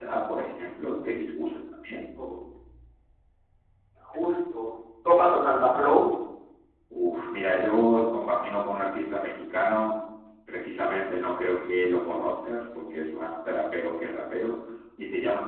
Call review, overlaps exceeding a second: none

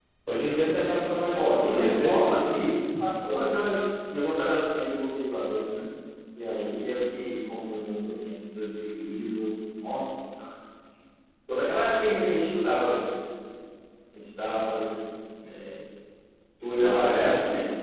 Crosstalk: present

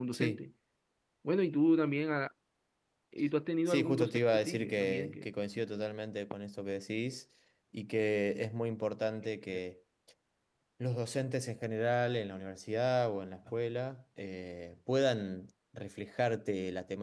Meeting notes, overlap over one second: present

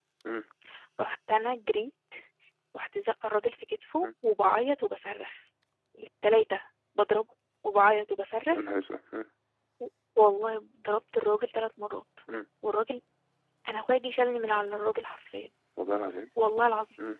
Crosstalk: none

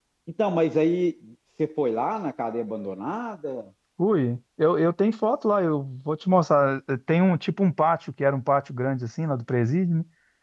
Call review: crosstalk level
none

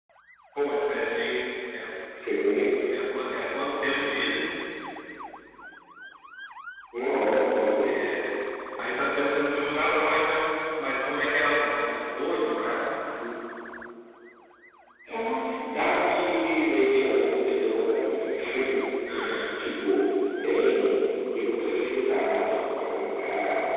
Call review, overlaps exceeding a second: none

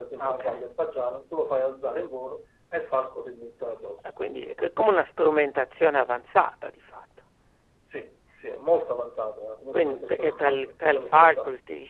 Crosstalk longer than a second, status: present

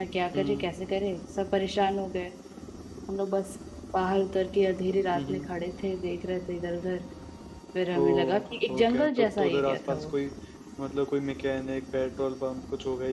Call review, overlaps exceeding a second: present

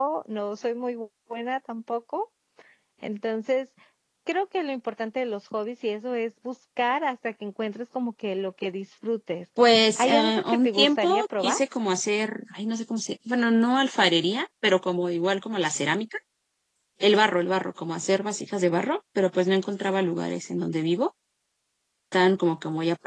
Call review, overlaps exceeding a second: present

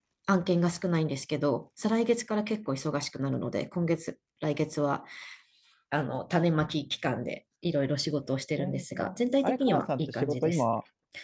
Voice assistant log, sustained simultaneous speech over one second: present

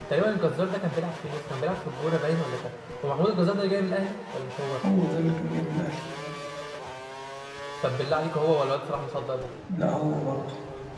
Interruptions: none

